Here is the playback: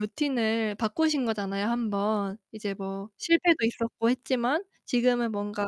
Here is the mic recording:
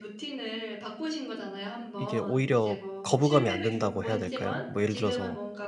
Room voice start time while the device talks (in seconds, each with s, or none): 2.0 s